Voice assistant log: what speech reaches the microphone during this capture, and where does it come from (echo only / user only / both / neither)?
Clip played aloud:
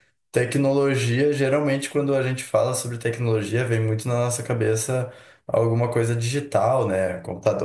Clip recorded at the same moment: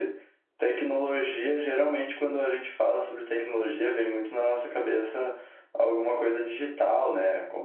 echo only